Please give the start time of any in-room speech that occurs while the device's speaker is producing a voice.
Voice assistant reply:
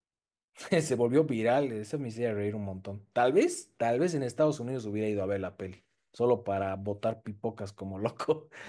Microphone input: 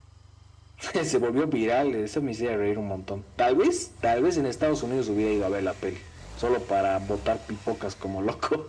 none

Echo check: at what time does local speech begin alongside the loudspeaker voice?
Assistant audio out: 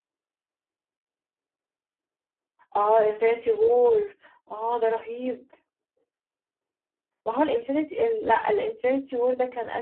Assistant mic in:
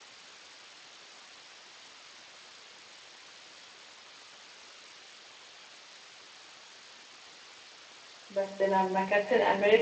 8.3 s

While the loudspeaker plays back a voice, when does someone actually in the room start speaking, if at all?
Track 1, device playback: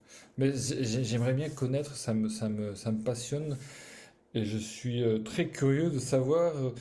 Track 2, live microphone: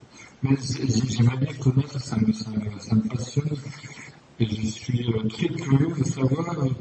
none

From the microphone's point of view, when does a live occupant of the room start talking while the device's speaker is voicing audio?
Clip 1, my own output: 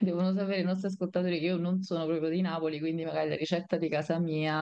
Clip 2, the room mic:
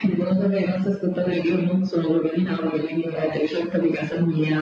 none

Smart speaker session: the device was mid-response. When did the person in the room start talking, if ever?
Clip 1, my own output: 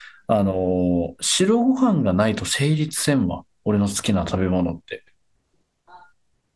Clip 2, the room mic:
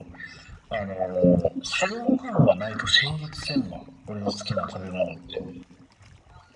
none

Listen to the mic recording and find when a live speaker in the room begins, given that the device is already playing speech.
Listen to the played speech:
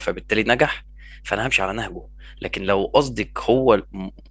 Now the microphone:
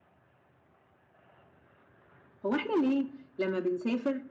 2.5 s

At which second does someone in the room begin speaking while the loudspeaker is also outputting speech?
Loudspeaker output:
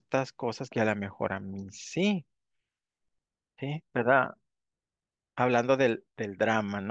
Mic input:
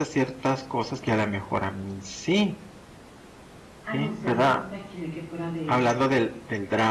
3.8 s

